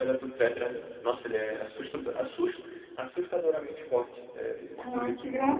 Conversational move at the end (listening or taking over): taking over